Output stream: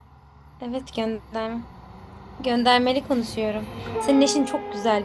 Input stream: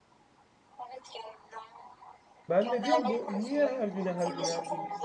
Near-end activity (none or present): present